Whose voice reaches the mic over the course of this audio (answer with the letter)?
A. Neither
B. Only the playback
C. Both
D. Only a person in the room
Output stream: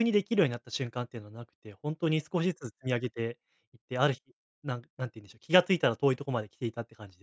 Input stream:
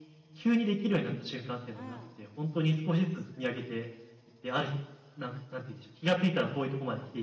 C